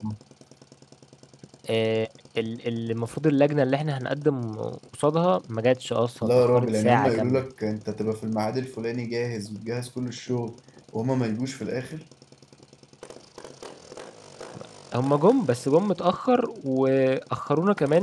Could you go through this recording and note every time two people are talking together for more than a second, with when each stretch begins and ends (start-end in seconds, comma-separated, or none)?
6.2-7.4